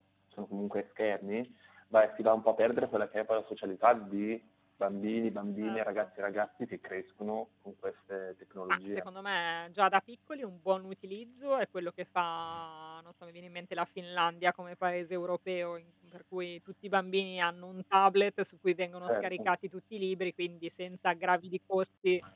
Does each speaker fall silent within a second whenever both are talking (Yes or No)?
Yes